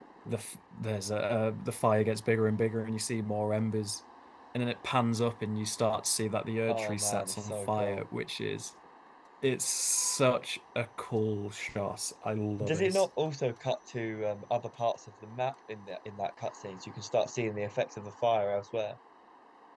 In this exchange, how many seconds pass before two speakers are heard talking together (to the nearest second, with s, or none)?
7 s